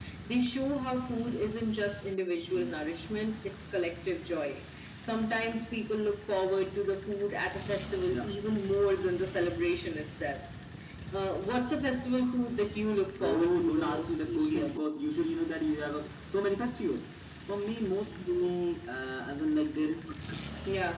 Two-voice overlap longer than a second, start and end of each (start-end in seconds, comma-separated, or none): 13.2-14.7